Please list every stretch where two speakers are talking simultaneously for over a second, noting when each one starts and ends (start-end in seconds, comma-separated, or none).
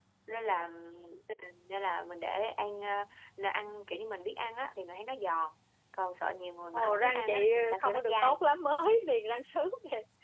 6.7-8.4